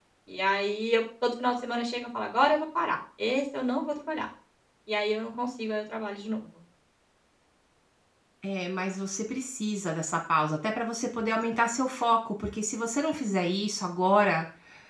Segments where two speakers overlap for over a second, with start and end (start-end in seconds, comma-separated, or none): none